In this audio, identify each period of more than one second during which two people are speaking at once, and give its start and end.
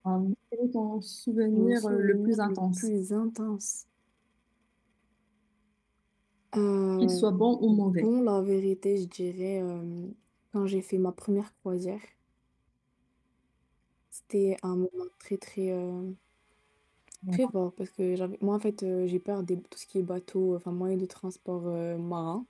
1.5-2.9

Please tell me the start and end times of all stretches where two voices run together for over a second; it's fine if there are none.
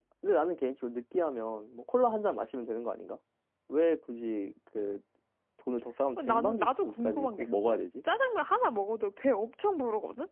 6.2-7.8

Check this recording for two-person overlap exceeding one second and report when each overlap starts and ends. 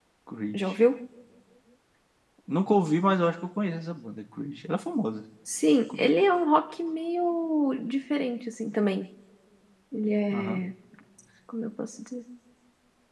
none

